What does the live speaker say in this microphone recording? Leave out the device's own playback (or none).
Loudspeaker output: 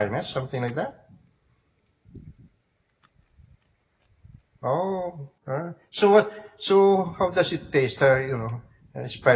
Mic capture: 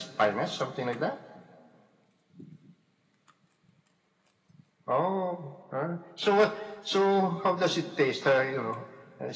none